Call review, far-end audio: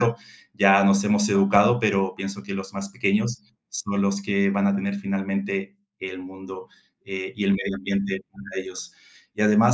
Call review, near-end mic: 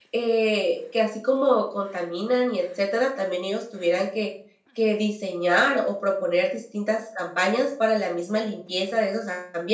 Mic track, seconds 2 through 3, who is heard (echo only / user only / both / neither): user only